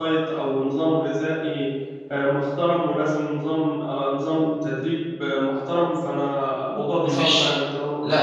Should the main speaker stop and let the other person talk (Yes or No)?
Yes